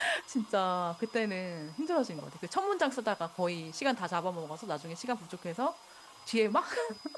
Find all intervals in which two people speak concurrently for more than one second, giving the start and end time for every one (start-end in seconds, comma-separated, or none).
none